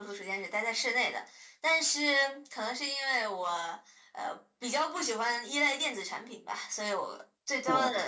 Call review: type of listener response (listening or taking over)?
listening